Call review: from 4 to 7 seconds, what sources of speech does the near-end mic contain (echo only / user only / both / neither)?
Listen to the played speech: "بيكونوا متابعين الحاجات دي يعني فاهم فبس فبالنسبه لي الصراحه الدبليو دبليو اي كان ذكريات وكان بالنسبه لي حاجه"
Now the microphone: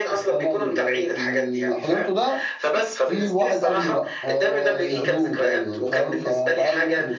both